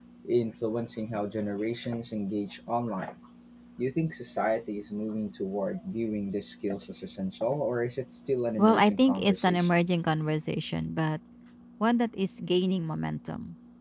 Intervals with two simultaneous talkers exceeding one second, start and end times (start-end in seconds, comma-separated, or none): 8.6-9.8